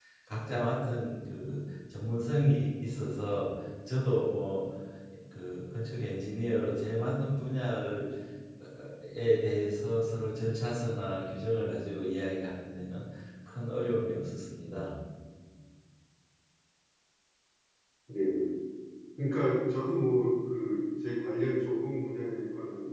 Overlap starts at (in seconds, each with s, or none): none